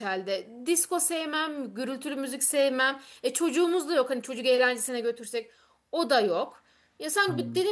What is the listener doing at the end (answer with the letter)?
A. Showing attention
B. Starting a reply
A